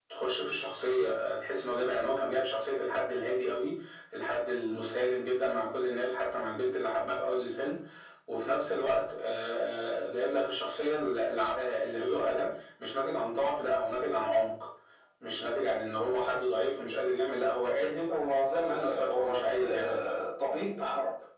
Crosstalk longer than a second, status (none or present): present